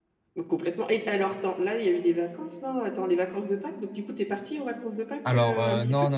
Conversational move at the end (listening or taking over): taking over